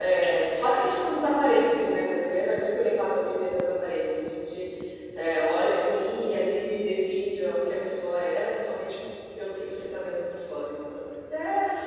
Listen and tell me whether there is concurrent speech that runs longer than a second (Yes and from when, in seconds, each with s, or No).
No